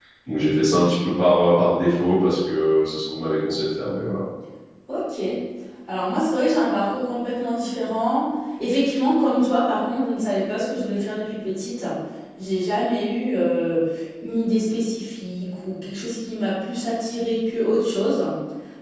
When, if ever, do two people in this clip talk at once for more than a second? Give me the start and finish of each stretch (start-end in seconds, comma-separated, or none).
none